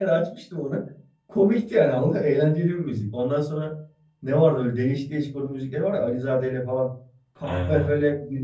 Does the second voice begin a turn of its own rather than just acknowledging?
No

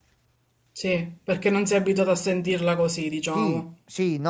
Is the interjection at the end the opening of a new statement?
Yes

